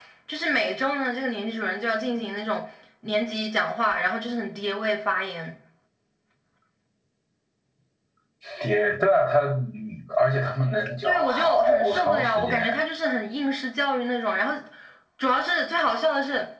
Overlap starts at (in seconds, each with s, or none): 11.0 s